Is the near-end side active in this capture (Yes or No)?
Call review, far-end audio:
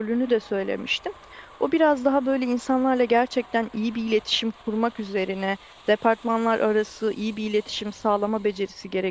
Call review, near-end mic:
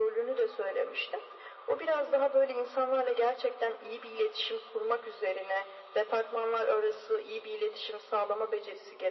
No